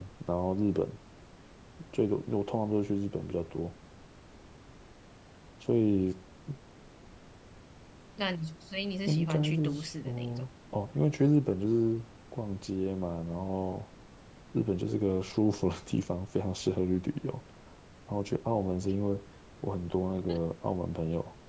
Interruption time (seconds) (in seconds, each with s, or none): 9.1 s